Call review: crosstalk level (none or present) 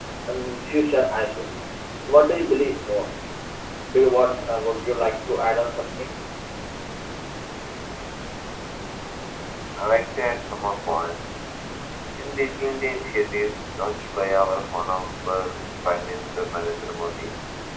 none